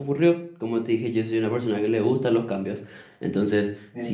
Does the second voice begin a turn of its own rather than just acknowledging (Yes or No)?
No